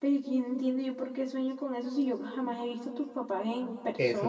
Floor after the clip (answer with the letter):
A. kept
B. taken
B